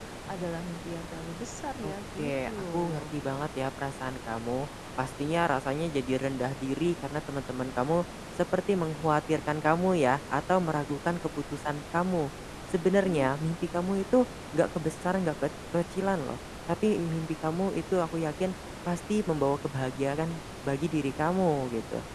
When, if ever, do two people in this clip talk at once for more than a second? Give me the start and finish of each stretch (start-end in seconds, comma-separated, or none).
1.8-3.1